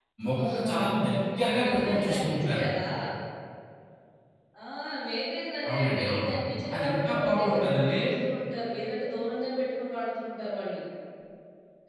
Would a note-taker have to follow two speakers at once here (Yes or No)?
Yes